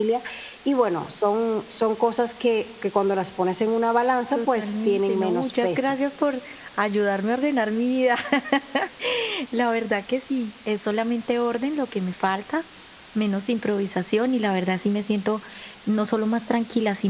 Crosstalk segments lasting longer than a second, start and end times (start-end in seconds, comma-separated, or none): 4.3-6.0